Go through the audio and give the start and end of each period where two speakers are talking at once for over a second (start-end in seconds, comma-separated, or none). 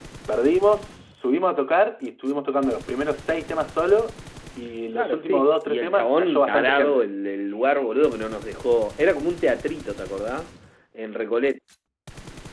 4.9-7.0